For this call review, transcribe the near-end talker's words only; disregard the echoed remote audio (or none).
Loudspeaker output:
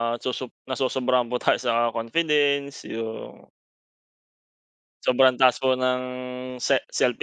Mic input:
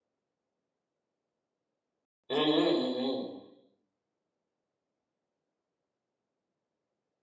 Mm, mm. mm, mm.